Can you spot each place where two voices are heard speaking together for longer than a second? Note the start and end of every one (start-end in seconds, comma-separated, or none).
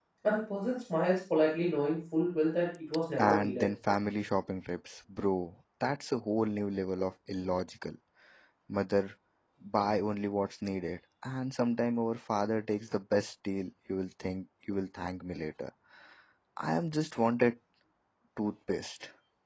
none